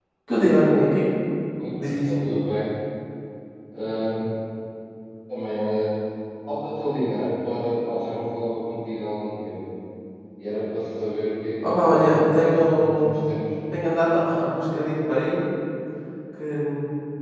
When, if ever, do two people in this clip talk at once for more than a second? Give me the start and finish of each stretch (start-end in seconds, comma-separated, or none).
11.7-13.2